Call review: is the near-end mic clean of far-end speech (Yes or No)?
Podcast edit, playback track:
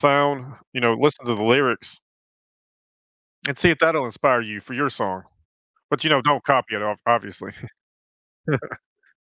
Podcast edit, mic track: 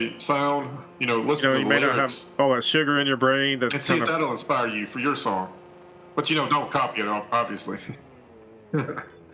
No